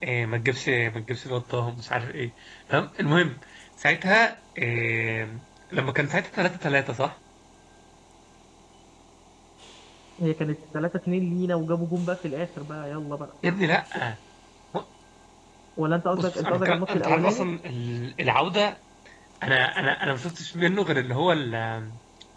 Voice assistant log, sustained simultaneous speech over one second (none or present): present